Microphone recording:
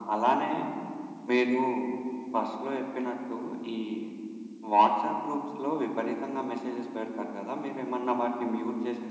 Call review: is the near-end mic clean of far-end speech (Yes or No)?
No